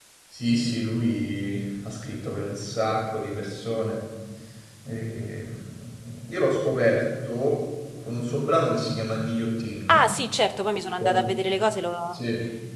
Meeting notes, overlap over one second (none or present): none